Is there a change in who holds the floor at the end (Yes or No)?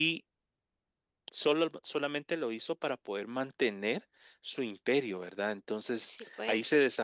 No